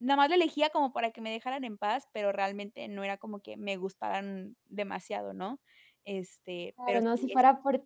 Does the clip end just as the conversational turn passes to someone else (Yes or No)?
Yes